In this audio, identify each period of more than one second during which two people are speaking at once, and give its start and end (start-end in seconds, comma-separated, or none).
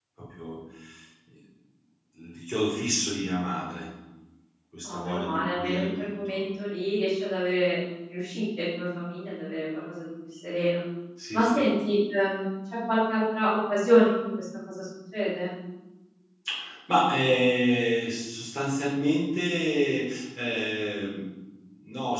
4.8-6.1